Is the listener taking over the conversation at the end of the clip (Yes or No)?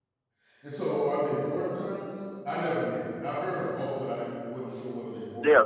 Yes